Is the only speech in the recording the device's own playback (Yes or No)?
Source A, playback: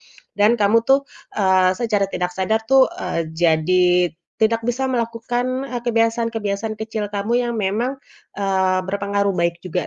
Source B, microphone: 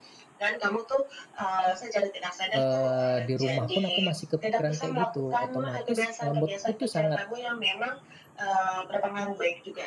No